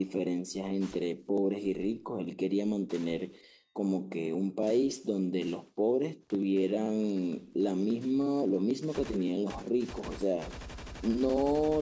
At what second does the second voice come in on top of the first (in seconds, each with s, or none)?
none